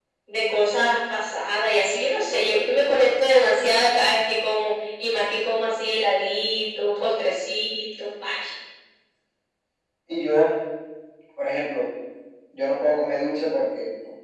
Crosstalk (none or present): none